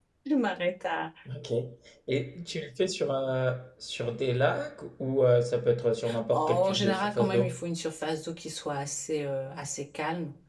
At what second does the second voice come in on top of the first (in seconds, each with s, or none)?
6.3 s